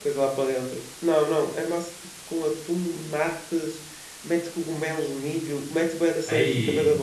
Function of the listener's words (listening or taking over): listening